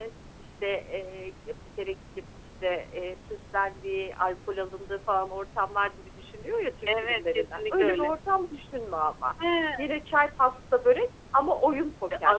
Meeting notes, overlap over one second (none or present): present